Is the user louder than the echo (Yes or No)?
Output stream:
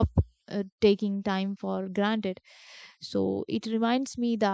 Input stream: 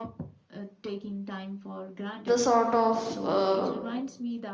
Yes